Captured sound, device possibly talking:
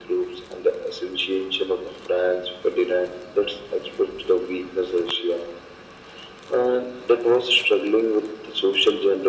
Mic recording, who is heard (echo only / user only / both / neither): echo only